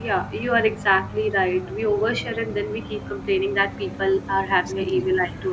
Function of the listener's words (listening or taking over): listening